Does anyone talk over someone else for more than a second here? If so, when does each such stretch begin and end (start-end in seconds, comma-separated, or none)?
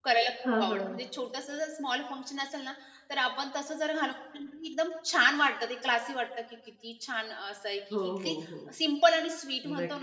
none